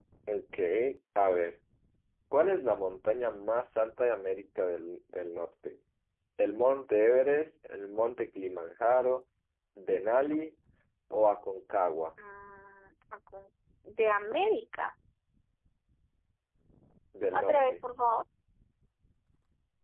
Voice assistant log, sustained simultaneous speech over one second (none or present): none